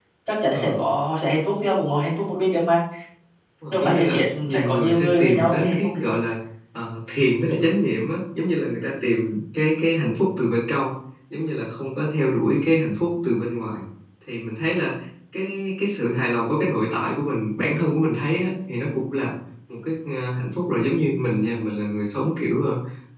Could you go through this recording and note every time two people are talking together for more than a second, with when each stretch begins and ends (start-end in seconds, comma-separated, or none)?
3.7-6.2